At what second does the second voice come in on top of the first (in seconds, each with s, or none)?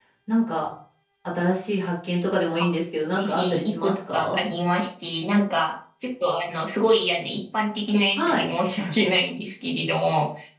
3.2 s